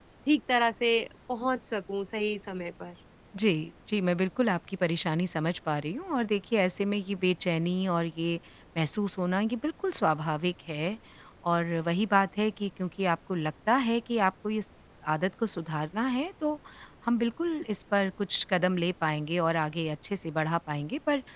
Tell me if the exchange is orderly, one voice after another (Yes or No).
Yes